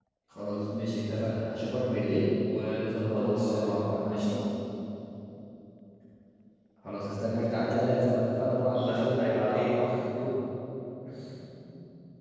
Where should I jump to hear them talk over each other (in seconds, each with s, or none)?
3.1 s